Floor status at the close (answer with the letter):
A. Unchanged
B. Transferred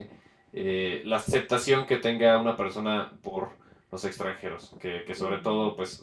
A